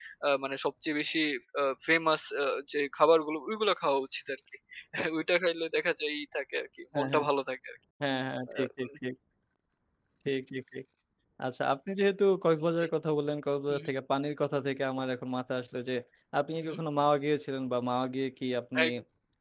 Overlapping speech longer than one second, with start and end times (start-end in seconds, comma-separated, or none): none